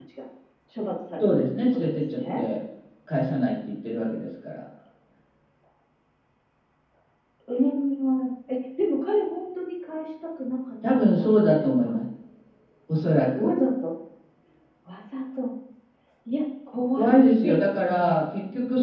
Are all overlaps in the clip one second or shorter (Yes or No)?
No